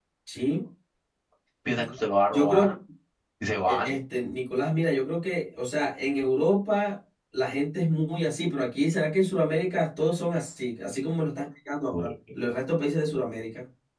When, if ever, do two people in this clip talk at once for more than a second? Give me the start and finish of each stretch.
none

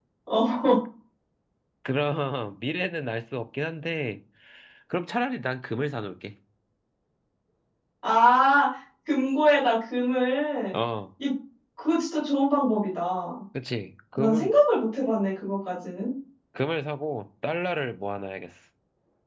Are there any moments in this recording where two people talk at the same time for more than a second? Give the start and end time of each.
none

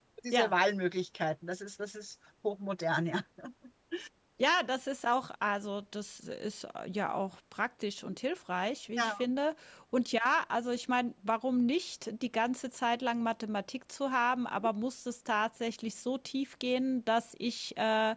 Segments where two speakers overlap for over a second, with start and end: none

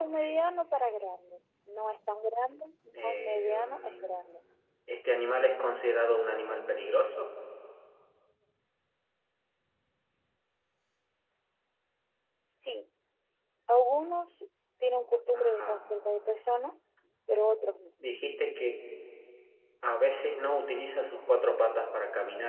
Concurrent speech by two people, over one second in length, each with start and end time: 2.9-4.2

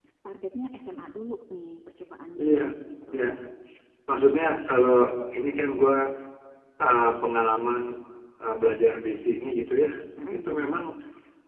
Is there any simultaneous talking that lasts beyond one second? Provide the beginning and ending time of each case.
none

